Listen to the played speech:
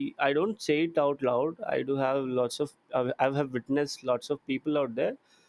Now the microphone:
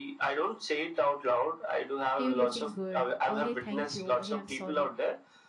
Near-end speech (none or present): present